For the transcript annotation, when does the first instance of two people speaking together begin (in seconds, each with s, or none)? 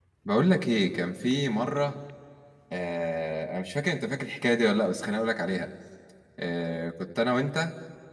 none